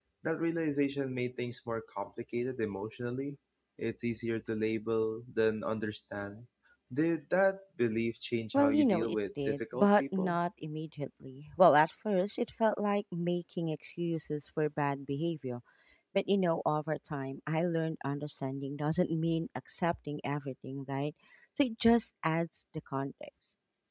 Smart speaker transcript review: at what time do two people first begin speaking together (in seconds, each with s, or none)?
8.5 s